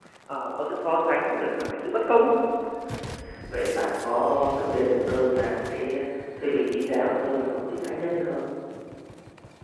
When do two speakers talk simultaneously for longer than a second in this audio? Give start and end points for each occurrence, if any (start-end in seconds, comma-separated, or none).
none